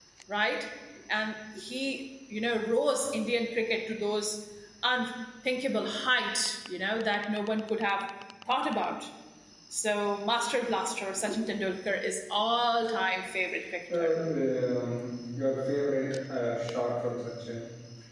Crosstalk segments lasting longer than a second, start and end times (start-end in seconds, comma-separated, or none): none